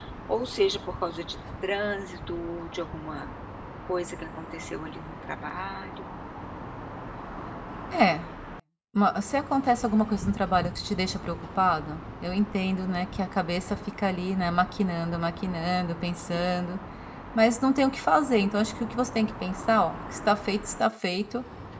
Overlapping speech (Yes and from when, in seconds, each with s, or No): No